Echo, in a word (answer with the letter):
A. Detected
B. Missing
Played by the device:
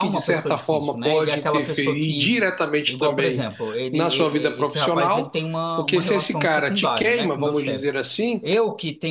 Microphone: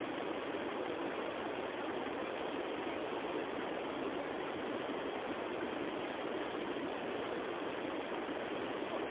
B